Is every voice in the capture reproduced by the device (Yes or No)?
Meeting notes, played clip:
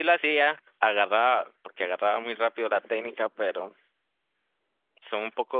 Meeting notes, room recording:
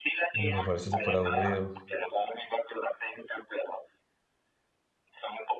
No